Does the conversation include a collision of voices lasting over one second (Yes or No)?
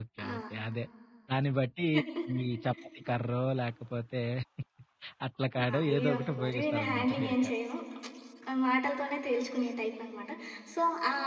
Yes